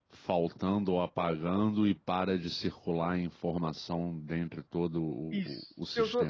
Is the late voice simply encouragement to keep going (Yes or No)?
No